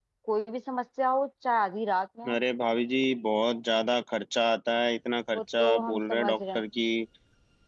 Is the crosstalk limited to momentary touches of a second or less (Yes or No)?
No